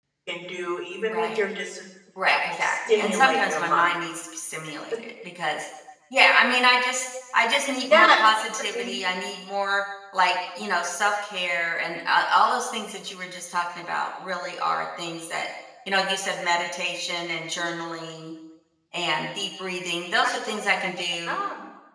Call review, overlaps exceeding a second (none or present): present